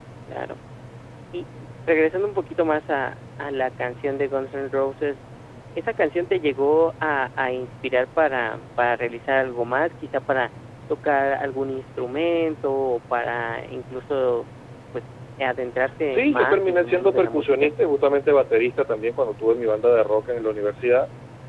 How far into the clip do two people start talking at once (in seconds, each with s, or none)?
16.1 s